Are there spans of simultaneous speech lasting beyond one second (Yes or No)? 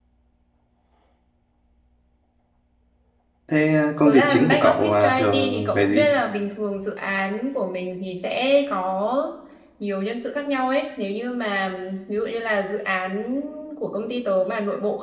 Yes